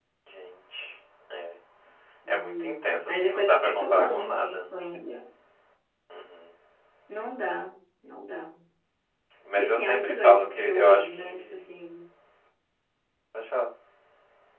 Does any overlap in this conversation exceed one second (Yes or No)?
Yes